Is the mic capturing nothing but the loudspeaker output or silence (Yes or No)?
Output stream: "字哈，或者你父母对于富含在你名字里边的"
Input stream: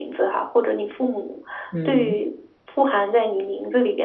No